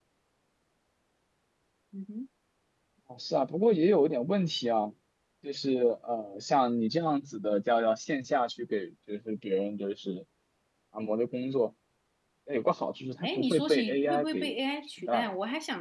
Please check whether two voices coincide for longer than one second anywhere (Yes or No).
Yes